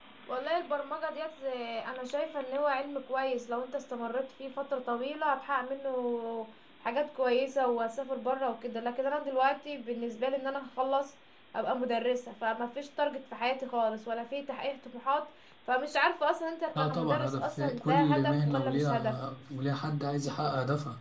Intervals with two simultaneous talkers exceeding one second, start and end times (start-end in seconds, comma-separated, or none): 16.8-19.1